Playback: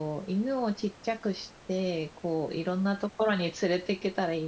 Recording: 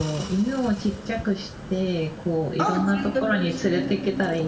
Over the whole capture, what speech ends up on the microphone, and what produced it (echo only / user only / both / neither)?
both